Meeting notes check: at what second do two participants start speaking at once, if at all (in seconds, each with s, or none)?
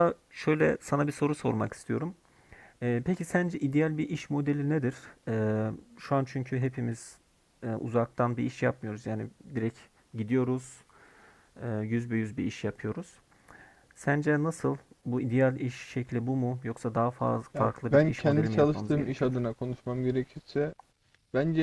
17.5 s